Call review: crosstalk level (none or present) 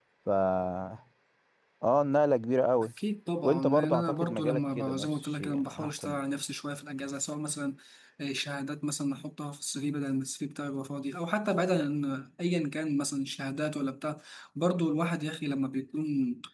present